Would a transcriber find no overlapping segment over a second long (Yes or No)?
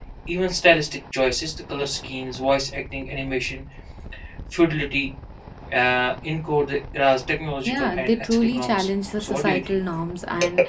No